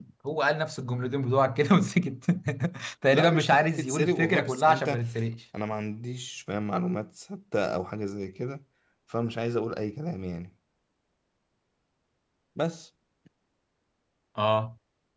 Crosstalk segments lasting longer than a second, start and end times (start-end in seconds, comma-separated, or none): 3.1-5.0